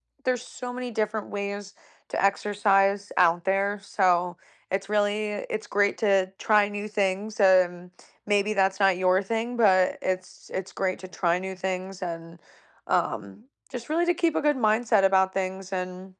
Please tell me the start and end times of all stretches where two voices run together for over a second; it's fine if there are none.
none

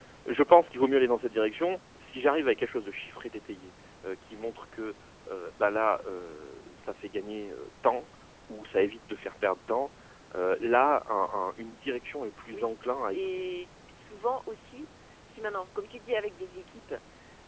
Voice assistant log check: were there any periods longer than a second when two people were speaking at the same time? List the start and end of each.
none

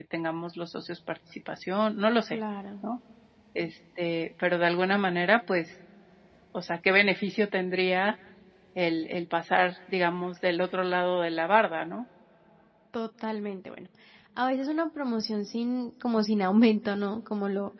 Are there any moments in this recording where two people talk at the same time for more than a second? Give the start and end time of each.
none

